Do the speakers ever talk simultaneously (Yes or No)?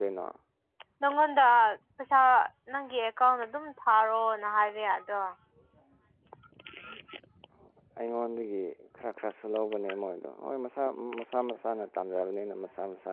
No